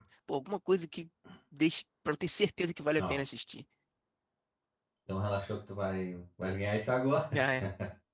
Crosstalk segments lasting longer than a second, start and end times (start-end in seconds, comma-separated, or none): none